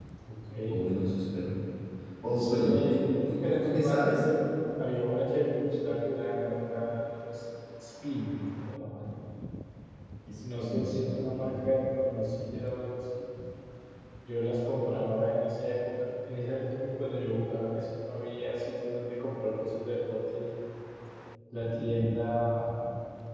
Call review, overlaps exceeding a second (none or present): present